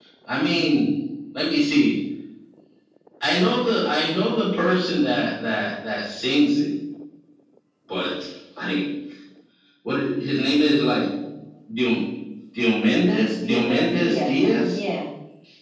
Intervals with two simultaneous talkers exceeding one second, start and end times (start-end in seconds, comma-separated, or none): 13.4-14.8